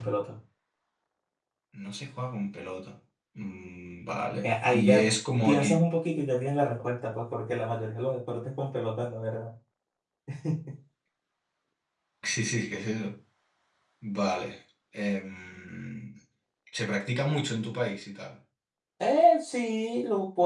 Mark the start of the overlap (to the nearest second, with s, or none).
4 s